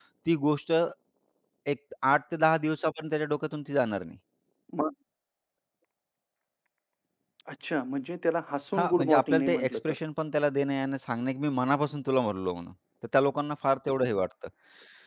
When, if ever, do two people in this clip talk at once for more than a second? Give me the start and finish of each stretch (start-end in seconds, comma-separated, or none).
8.8-10.0